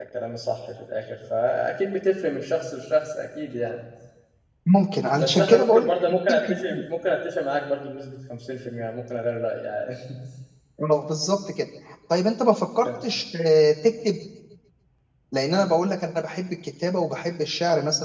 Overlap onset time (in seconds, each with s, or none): 5.2 s